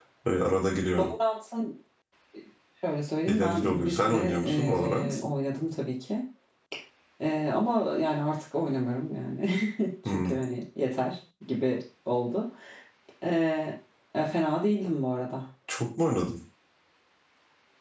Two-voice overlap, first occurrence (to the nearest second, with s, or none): 3 s